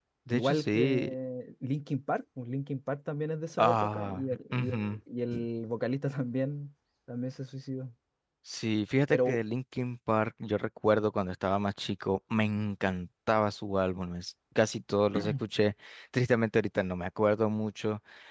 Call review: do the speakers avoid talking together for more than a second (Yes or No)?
No